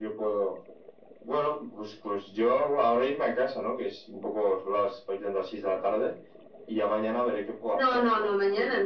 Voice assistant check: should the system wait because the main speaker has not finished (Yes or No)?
No